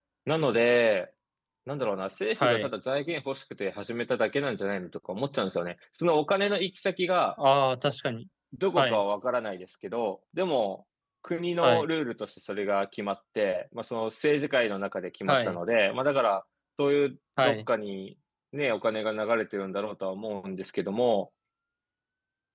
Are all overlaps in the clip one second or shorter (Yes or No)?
Yes